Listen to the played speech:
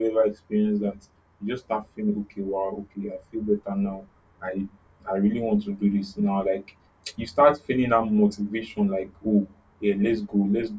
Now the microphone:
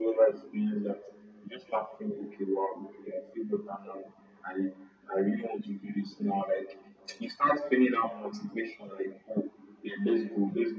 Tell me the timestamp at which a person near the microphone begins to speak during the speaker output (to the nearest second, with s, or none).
none